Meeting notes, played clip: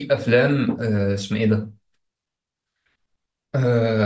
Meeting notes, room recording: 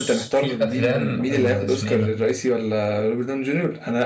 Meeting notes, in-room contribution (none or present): present